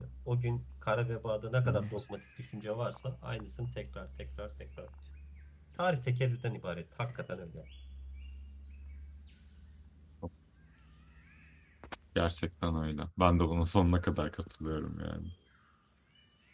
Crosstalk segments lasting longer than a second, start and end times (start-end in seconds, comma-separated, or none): none